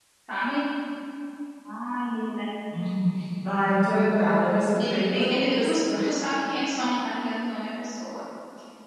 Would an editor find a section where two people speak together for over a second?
Yes, from 4.8 s

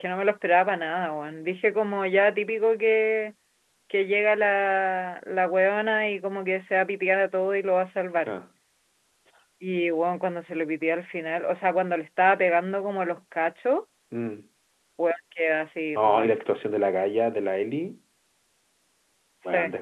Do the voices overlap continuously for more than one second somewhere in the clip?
No

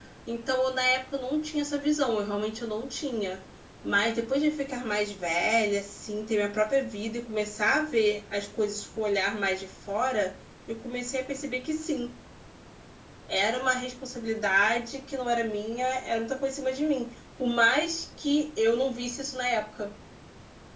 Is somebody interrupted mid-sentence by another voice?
No

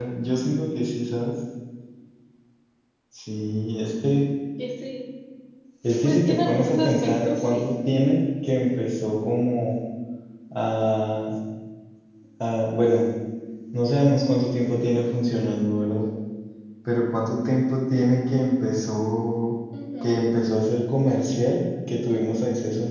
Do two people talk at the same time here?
Yes, from 6.0 s

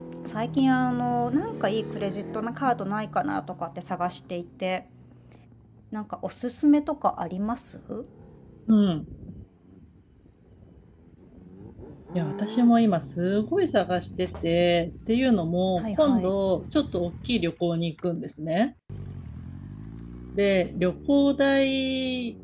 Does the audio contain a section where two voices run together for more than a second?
No

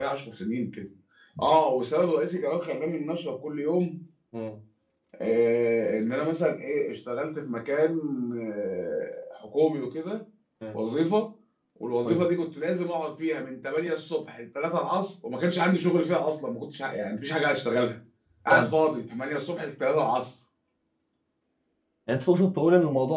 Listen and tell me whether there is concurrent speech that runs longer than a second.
No

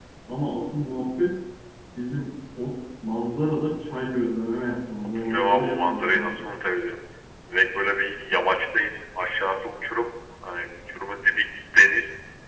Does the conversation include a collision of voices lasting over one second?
Yes, from 5.2 s

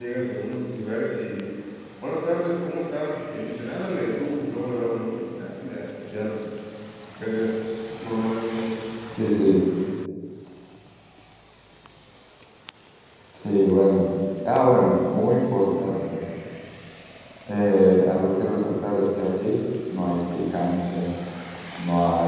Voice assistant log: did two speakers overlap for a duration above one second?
No

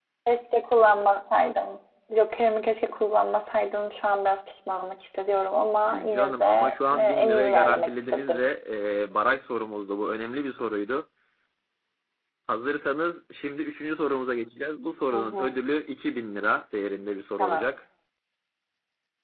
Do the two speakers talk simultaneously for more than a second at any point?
Yes, from 5.8 s

